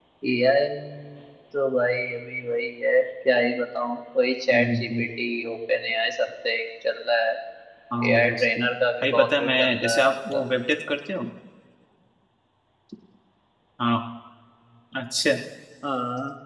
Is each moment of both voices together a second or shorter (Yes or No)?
No